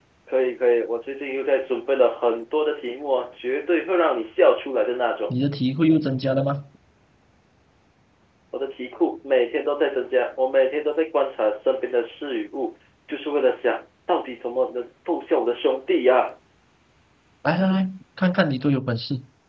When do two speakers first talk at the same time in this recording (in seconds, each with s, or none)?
none